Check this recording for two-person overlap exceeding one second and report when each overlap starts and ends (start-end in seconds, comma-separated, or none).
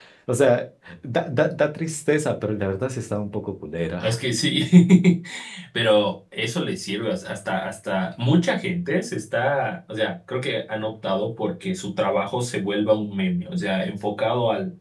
none